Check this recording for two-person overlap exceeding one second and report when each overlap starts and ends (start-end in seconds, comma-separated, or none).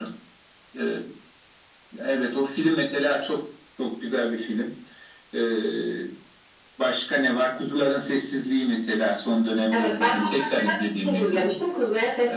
9.7-11.5